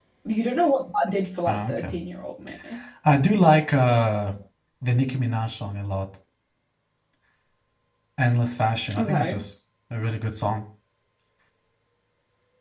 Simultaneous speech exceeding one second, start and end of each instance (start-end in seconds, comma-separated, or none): none